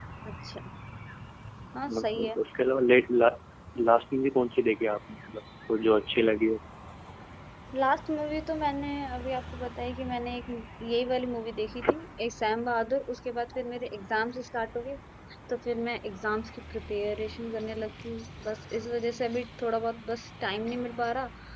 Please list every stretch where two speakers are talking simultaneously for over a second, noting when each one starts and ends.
none

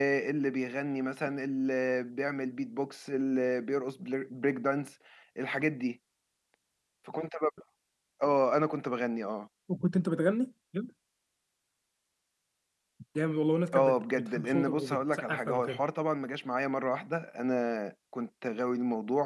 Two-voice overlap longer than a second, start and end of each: 13.7-15.8

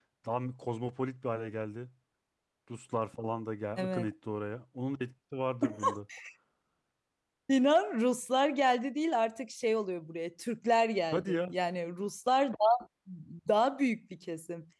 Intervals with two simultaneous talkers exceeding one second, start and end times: none

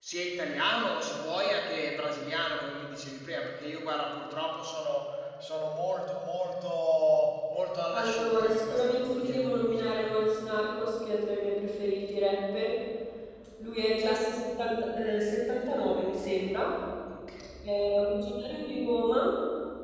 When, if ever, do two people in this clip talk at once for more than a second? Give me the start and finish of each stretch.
7.9-10.1

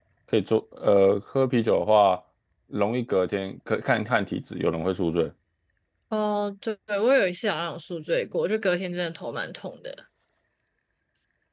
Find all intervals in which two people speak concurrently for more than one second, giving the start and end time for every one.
none

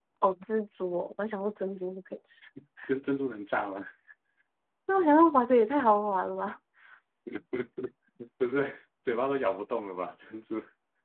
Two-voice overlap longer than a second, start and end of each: none

